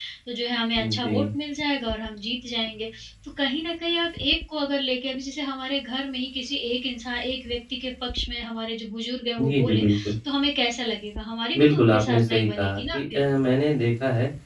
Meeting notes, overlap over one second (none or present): present